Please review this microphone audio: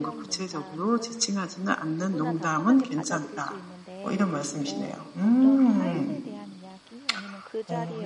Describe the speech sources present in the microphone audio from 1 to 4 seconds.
both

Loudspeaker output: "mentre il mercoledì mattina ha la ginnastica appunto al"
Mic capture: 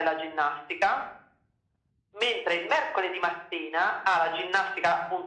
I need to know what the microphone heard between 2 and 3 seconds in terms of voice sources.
echo only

